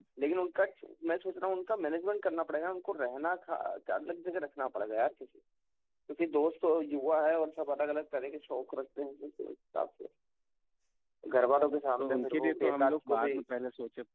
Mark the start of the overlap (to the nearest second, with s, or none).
12 s